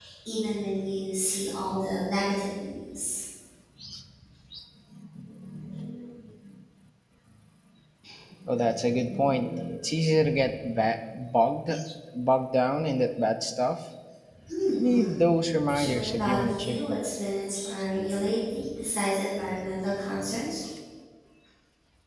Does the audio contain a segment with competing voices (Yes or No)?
Yes